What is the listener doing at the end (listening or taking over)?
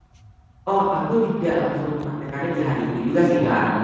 listening